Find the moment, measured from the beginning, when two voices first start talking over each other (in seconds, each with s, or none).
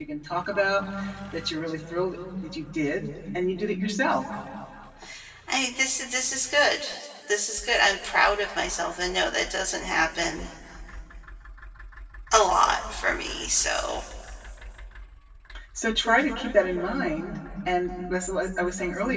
none